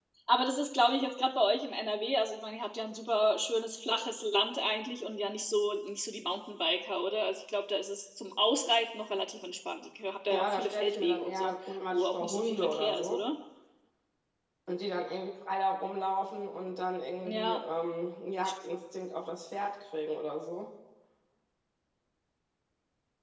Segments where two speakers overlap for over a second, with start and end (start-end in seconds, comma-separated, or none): 10.3-13.2